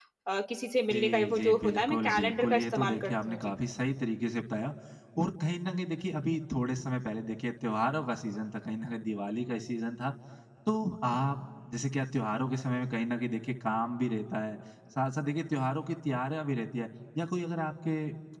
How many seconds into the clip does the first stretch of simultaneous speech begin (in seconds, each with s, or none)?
0.9 s